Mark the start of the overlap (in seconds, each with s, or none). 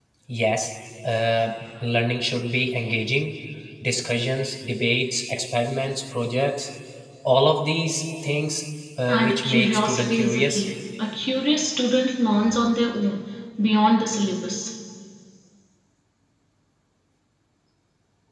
9.1 s